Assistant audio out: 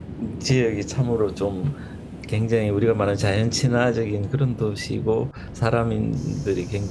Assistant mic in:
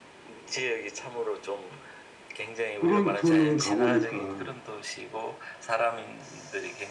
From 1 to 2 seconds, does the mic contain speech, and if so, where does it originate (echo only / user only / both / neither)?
echo only